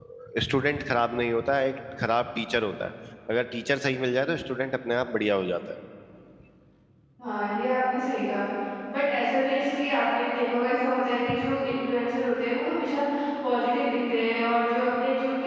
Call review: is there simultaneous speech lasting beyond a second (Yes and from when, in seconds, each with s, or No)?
No